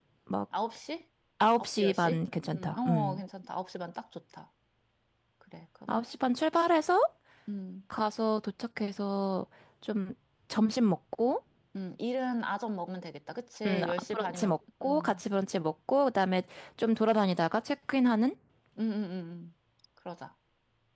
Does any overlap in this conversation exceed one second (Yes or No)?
Yes